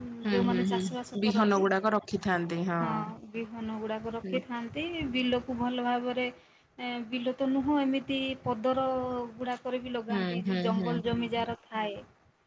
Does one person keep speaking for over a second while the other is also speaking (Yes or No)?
Yes